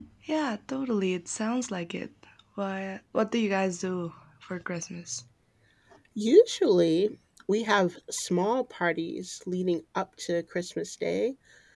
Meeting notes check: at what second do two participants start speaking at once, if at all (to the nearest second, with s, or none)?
none